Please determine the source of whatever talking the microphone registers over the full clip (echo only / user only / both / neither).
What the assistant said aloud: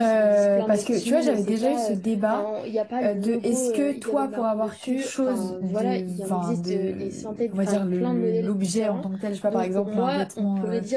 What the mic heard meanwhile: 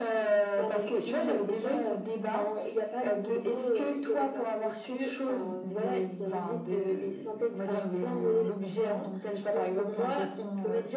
echo only